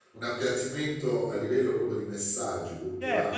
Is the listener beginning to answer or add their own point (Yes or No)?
Yes